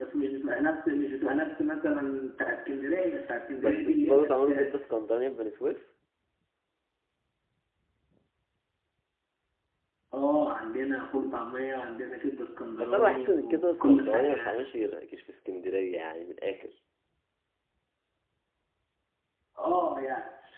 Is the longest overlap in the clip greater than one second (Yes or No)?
Yes